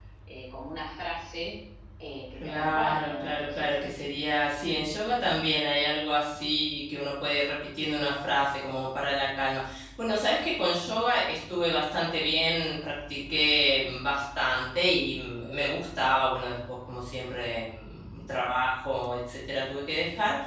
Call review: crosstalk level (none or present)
present